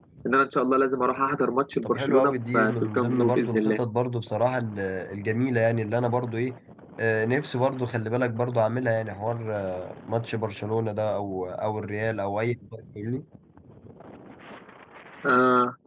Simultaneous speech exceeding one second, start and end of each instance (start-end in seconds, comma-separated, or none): 1.9-3.8